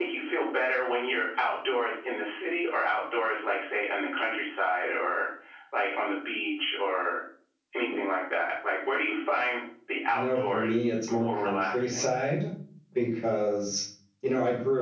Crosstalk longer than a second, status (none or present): present